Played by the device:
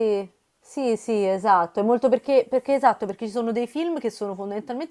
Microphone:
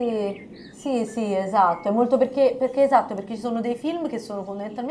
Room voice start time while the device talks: none

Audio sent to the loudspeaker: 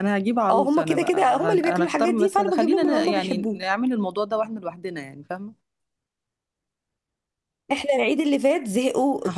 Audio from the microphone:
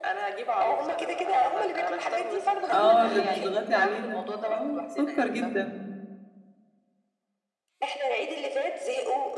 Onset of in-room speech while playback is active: 2.7 s

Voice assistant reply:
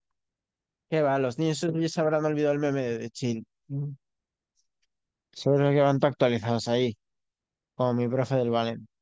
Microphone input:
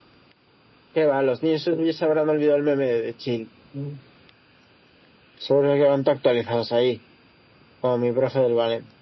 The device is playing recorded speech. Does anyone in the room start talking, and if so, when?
none

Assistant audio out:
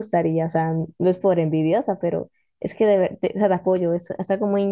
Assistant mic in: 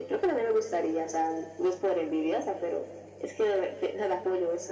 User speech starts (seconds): none

